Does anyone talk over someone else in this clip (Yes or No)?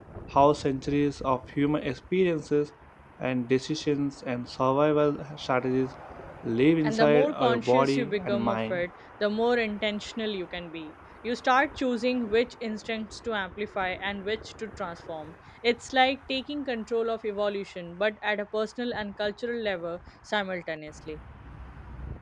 Yes